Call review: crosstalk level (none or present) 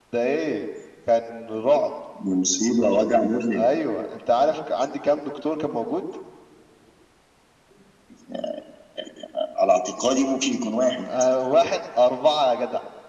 none